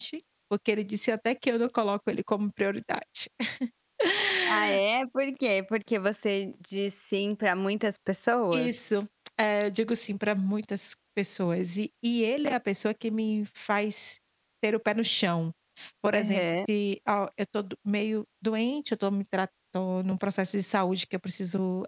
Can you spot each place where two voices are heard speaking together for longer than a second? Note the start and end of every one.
none

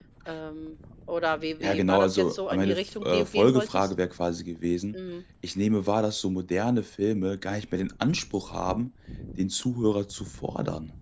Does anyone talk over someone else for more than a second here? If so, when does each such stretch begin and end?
1.6-3.9

